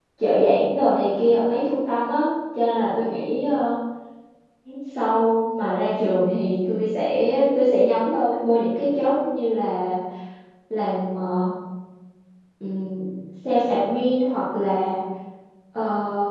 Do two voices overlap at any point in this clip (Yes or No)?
No